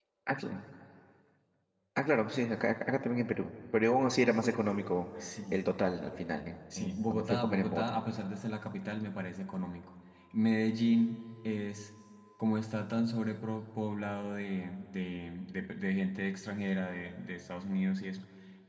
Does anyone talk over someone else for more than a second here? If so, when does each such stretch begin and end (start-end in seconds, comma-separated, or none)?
6.8-8.0